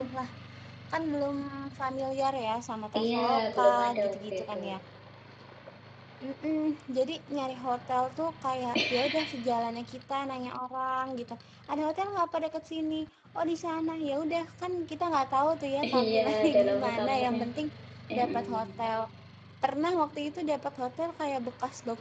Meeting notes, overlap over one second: present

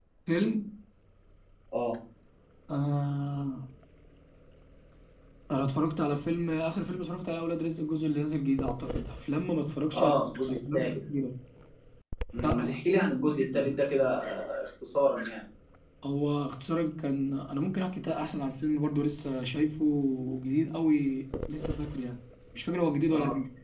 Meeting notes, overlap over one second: present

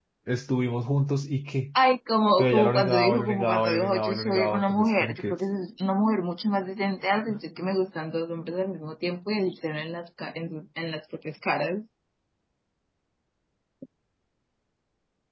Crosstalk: present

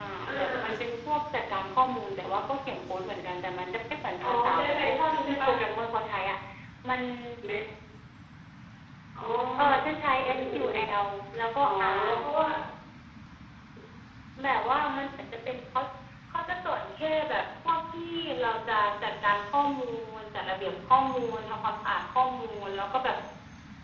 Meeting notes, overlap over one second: present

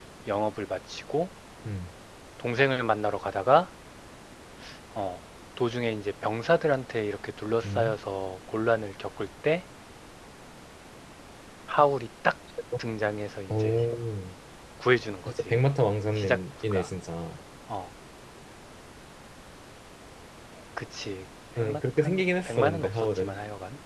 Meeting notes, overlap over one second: present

